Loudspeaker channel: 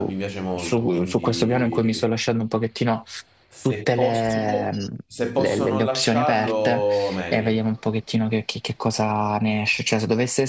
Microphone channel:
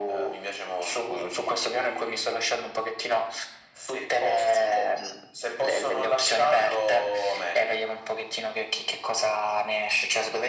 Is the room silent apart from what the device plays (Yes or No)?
Yes